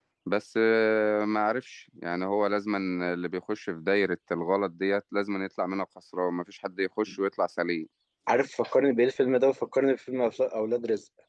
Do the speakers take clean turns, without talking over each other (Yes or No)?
Yes